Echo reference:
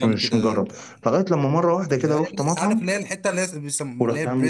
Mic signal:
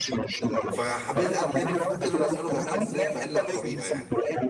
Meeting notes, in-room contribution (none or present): present